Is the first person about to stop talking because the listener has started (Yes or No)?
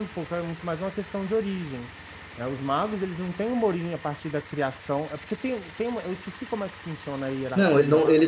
Yes